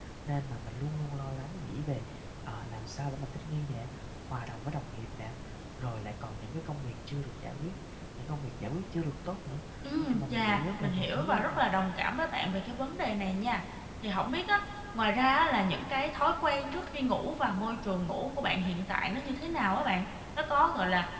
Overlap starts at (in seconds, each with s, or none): 10.0 s